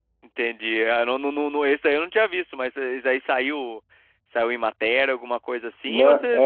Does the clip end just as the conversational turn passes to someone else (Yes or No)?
Yes